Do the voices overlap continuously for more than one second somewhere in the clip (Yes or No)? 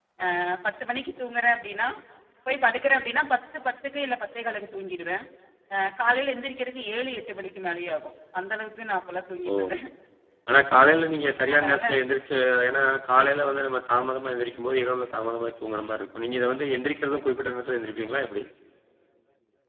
No